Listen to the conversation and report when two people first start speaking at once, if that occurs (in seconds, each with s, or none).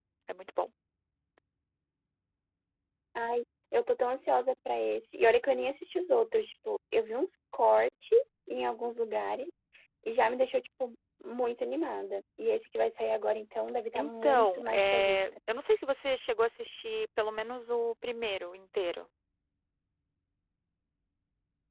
13.9 s